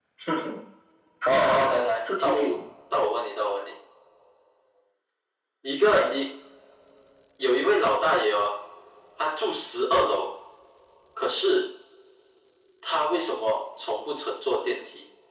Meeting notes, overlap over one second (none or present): present